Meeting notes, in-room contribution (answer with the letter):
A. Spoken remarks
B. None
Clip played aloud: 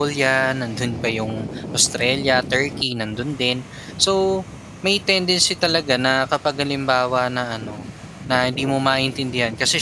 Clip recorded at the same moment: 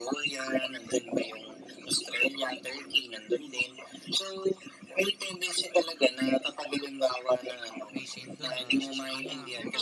A